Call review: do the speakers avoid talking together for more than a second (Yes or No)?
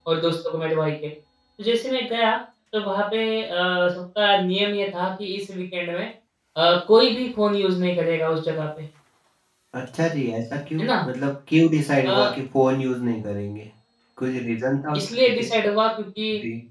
Yes